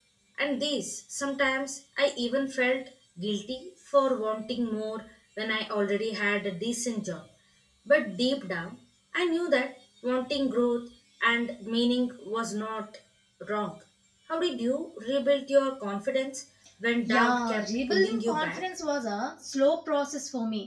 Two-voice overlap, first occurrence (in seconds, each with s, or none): 17.1 s